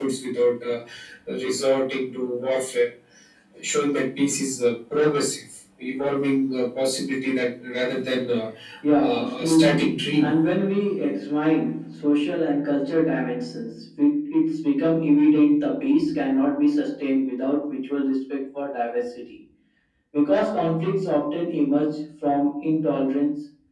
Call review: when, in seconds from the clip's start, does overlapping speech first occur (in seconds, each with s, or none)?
9.0 s